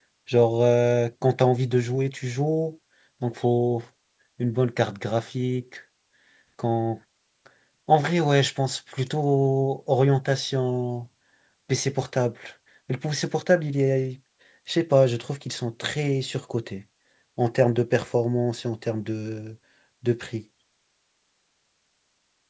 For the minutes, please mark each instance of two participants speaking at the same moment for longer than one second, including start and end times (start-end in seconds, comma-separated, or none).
none